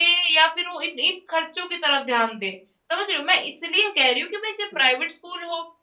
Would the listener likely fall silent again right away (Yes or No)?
Yes